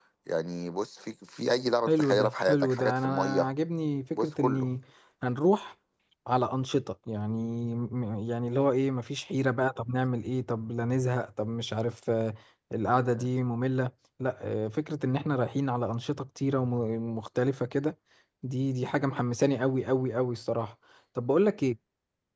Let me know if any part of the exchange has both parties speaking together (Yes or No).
Yes